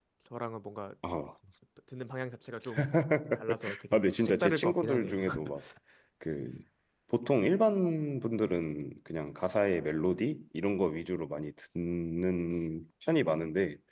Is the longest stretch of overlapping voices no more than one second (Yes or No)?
No